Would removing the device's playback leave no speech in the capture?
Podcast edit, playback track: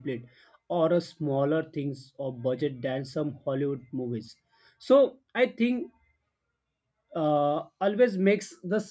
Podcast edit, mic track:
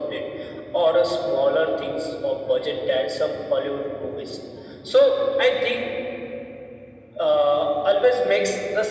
Yes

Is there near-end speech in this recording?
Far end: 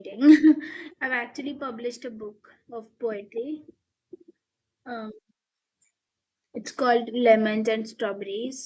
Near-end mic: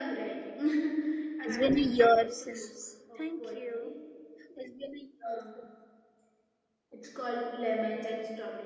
Yes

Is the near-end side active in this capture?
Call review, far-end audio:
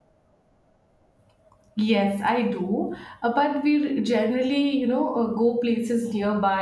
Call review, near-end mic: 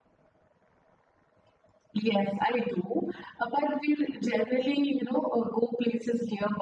No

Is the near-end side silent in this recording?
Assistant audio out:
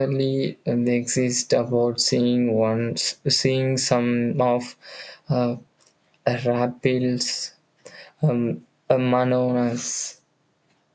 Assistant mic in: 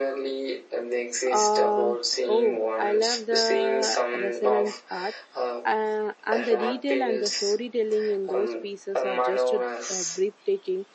No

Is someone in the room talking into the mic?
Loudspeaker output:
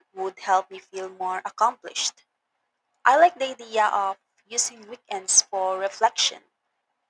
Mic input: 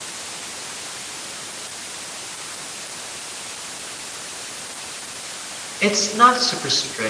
Yes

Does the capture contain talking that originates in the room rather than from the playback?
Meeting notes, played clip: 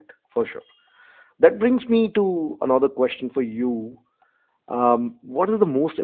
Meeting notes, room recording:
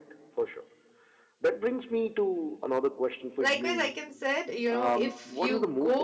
Yes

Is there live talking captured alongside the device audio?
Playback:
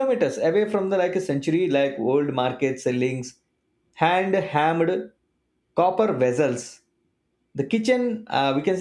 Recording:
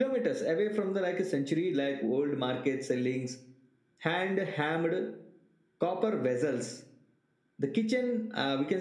No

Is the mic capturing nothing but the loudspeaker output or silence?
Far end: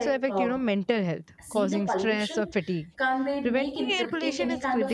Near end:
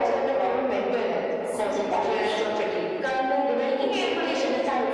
Yes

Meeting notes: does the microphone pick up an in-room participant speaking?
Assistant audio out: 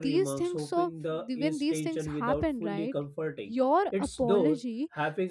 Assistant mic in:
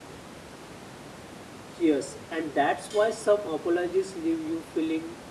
Yes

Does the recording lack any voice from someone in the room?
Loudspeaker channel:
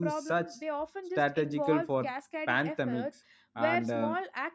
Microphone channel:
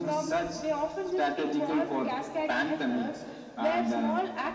Yes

